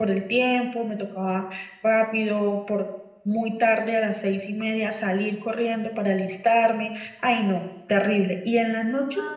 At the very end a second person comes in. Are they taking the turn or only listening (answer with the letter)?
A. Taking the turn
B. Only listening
A